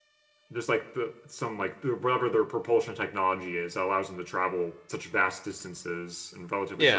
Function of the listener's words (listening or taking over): taking over